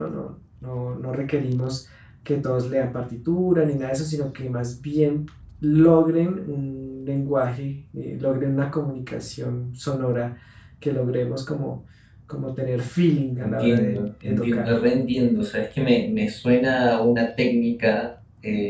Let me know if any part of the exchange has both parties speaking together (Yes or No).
Yes